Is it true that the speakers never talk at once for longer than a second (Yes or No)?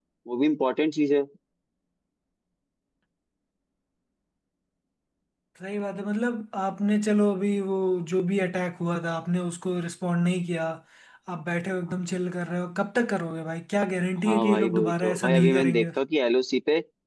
No